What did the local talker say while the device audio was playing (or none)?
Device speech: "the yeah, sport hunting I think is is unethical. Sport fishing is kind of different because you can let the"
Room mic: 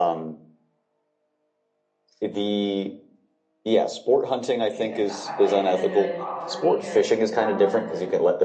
like I said not my life and it doesn't really bother me or like it's not something that's like